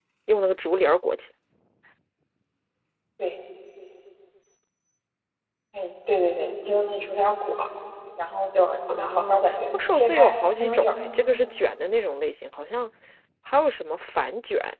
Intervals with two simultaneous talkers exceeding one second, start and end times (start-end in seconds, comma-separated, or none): 8.9-11.0